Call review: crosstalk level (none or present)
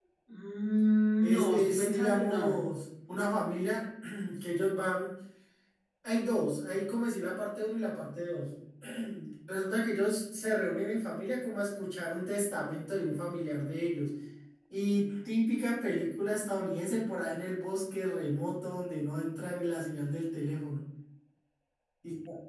present